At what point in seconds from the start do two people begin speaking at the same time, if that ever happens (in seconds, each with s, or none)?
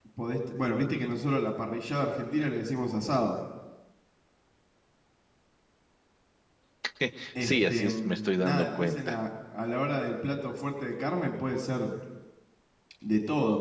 7.4 s